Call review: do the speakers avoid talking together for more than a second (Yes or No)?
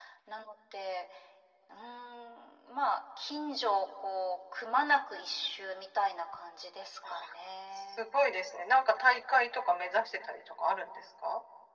Yes